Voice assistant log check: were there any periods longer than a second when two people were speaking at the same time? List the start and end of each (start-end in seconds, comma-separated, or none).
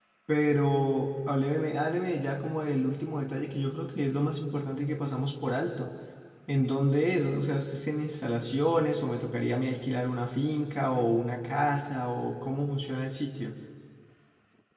none